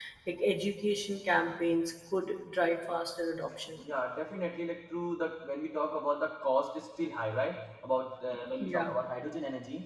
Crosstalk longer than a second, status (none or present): none